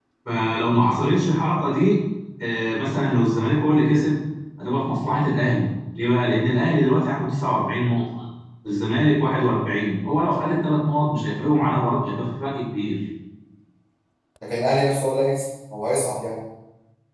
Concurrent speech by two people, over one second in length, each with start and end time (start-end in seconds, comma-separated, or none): none